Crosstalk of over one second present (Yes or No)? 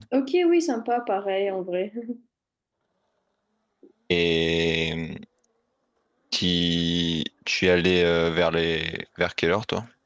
No